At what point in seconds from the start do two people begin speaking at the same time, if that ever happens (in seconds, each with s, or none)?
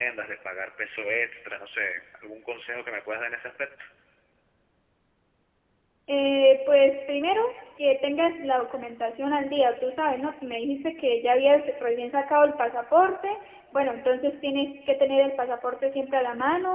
none